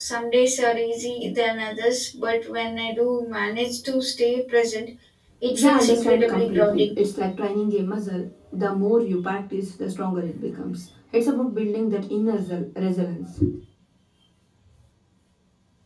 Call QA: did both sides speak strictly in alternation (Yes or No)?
No